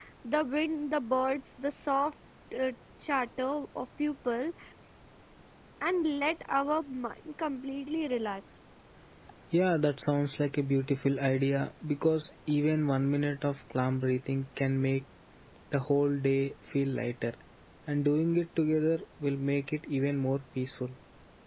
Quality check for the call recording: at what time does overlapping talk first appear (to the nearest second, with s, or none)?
none